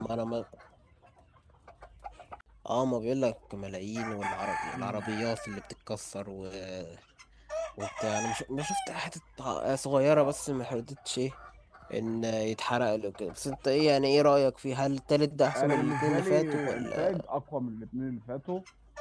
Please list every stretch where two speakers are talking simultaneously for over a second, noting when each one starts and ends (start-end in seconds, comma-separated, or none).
15.6-17.2